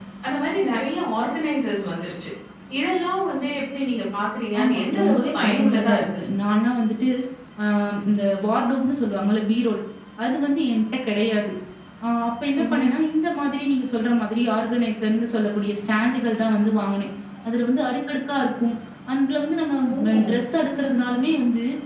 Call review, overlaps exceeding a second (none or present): present